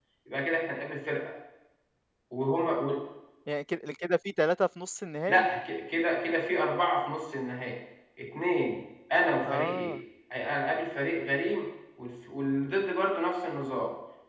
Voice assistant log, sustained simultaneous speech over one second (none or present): none